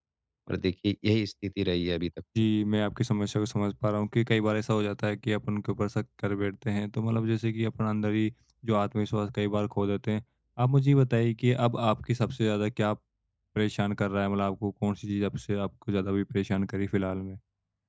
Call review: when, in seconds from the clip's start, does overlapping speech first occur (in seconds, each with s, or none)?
none